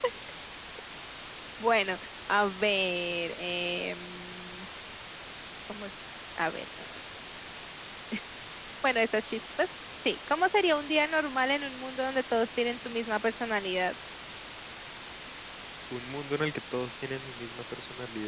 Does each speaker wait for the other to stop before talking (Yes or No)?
Yes